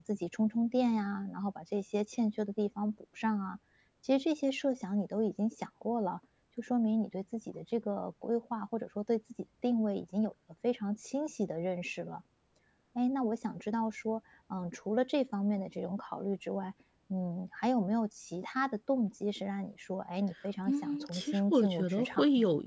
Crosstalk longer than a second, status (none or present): present